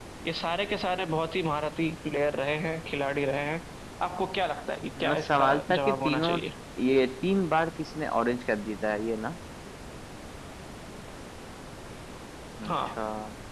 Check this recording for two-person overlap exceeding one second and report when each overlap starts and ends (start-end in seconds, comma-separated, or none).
5.1-6.3